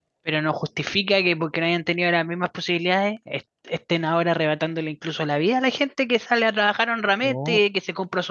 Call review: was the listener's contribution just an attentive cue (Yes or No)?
Yes